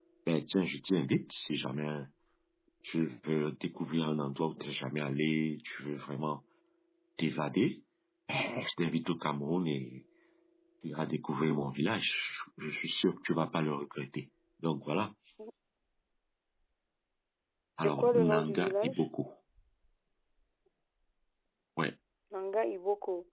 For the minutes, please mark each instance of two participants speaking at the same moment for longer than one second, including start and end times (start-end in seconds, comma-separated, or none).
17.8-19.0